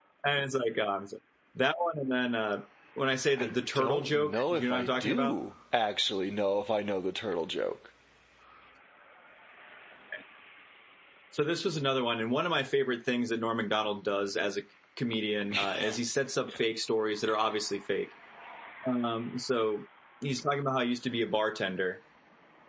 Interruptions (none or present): present